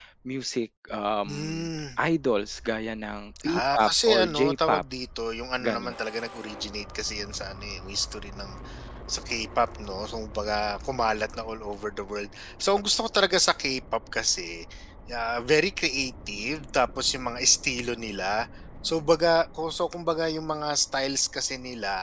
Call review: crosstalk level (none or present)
present